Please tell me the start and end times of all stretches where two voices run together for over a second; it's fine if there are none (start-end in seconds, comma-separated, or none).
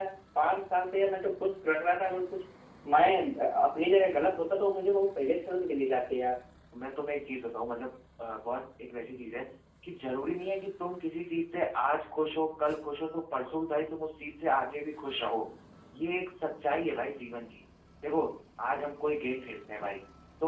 none